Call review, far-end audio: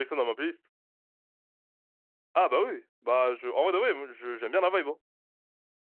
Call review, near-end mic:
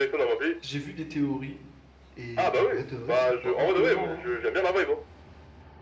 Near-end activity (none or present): present